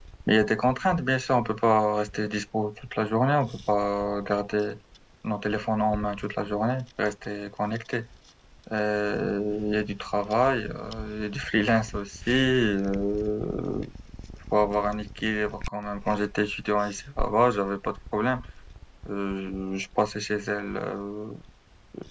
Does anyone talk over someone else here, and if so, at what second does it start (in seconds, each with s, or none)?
none